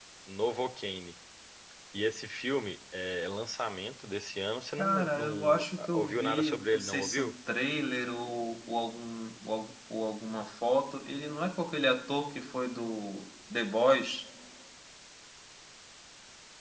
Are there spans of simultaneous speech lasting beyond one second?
Yes, from 4.8 s

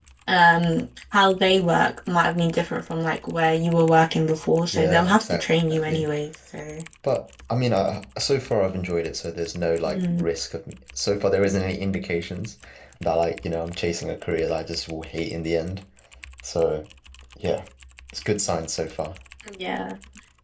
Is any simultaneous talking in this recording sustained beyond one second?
Yes, from 4.7 s

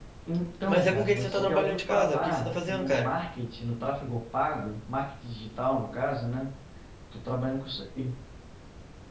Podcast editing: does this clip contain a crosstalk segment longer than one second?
Yes, from 0.7 s

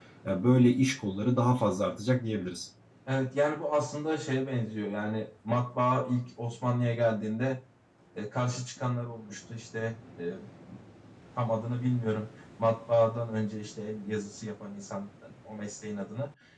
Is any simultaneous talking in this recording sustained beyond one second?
No

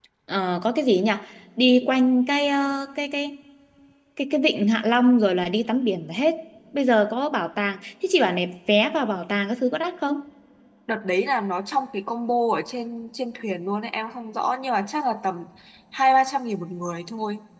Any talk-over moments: No

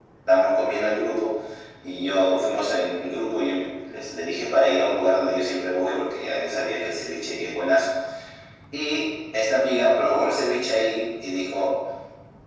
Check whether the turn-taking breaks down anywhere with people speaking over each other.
No

